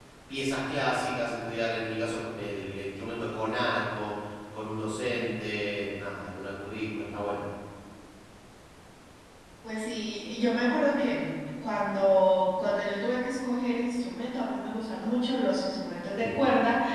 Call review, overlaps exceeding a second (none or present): none